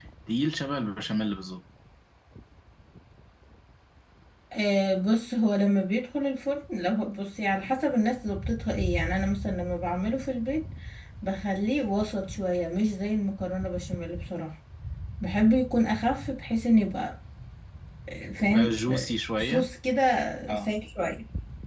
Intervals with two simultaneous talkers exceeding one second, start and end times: 18.4-19.7

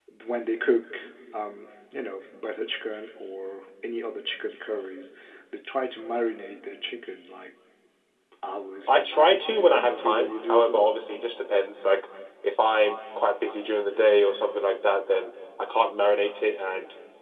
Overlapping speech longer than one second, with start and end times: 8.9-10.9

